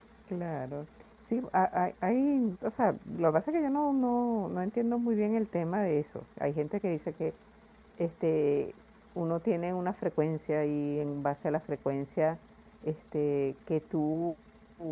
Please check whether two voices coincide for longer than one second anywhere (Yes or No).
No